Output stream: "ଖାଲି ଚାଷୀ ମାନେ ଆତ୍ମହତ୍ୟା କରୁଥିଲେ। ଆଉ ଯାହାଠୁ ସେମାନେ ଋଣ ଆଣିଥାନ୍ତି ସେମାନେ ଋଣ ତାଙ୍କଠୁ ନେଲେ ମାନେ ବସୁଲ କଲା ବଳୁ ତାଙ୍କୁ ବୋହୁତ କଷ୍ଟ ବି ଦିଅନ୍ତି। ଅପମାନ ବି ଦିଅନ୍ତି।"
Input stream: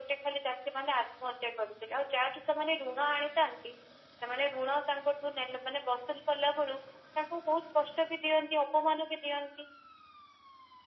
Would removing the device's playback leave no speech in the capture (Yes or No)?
Yes